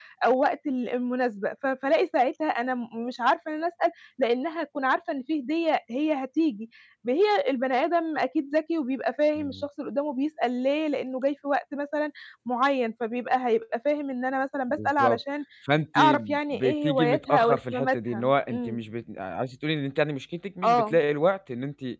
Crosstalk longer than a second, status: present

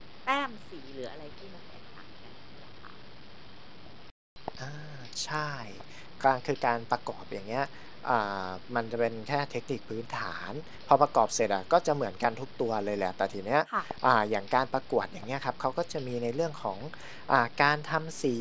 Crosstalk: none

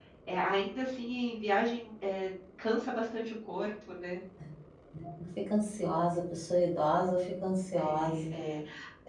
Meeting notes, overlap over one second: none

